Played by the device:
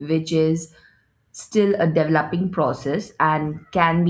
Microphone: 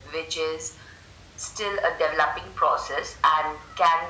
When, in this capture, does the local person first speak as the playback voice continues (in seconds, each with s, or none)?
none